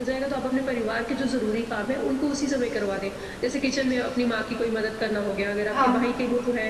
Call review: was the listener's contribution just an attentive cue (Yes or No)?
Yes